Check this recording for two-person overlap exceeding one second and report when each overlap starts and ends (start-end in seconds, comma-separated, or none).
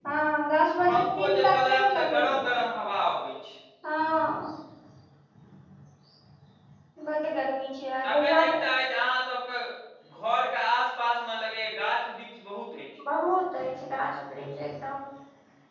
0.9-2.5